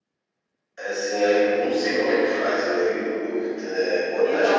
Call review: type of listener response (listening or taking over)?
taking over